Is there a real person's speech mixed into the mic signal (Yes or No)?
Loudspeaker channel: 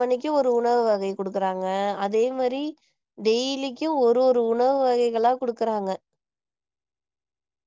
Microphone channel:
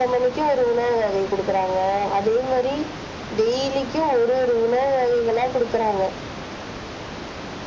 No